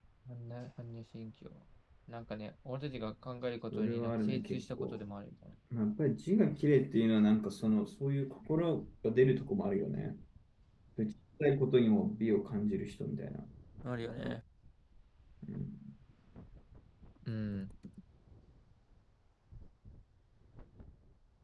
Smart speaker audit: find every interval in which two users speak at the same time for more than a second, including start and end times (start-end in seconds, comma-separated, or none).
3.7-5.0